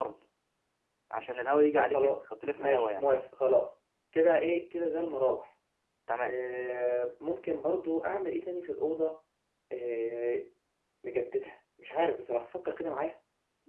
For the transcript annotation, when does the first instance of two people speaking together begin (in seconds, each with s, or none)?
1.8 s